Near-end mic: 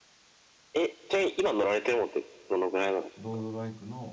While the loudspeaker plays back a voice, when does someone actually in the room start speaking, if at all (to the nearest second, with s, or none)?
3 s